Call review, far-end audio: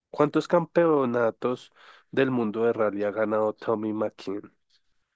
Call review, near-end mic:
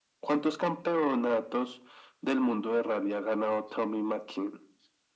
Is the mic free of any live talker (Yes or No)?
Yes